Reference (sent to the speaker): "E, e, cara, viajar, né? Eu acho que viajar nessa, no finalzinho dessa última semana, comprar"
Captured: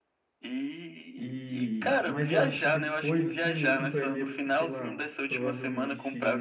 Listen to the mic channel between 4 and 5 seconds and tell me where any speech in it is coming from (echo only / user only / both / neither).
both